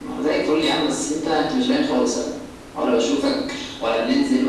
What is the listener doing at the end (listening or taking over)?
listening